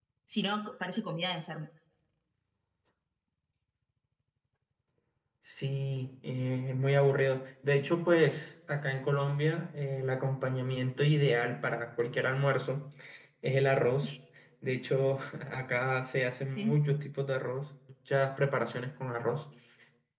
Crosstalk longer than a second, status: none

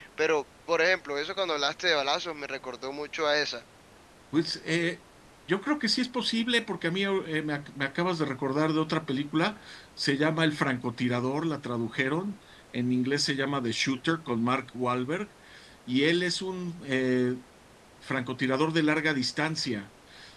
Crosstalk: none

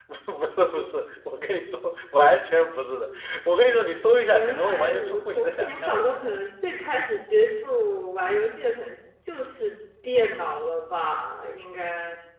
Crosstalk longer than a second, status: present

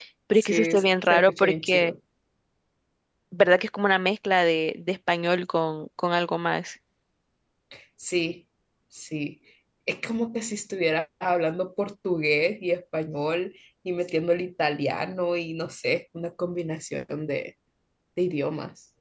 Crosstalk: present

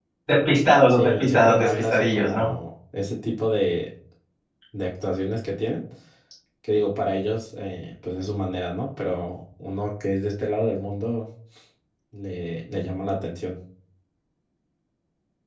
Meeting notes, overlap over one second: present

